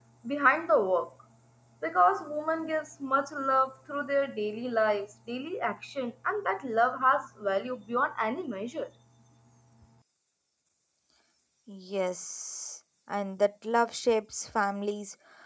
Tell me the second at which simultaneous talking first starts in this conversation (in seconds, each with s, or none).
none